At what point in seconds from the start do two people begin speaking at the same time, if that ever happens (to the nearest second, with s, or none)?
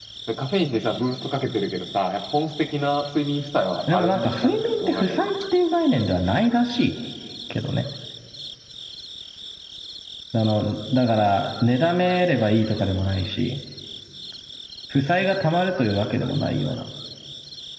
4 s